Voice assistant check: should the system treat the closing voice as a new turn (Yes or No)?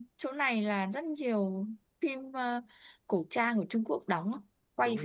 Yes